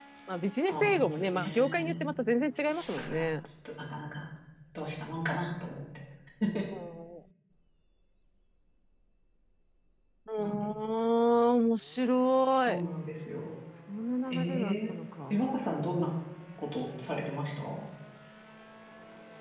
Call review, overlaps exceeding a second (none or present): present